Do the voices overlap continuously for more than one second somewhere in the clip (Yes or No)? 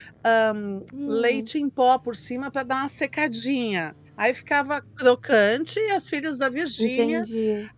No